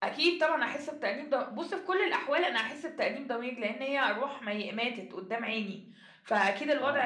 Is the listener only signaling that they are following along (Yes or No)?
Yes